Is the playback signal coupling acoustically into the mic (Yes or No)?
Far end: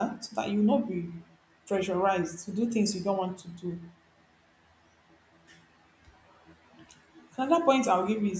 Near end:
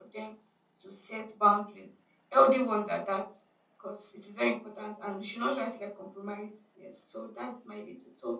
No